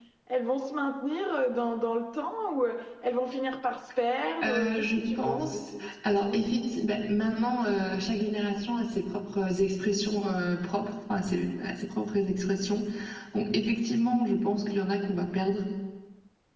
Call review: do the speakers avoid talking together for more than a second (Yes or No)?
No